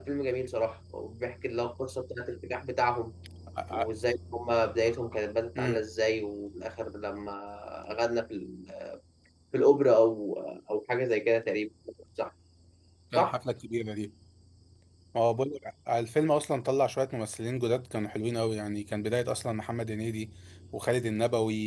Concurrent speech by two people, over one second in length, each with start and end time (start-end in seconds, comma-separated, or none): none